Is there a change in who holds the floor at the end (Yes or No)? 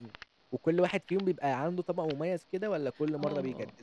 Yes